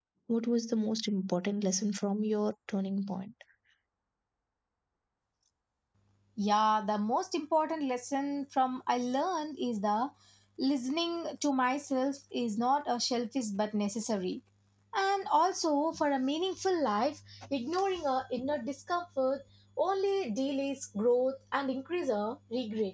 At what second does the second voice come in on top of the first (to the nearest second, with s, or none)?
none